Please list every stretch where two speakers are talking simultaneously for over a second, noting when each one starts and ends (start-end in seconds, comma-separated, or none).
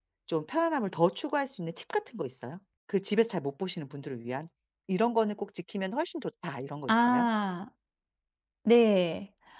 none